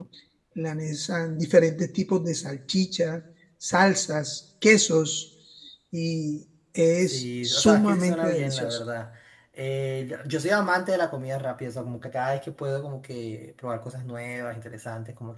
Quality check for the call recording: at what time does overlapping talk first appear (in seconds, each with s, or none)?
7.0 s